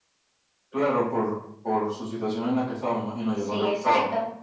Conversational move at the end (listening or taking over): taking over